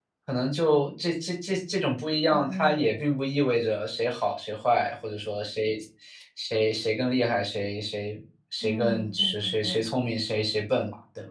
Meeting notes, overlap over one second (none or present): present